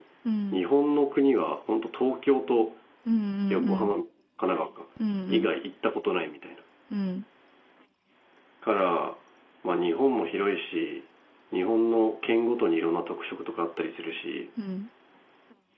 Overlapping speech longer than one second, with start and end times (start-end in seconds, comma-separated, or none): none